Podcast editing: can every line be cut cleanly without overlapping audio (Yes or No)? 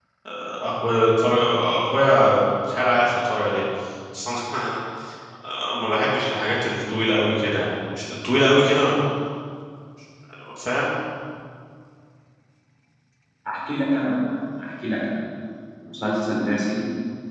Yes